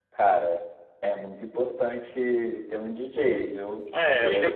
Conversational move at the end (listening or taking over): taking over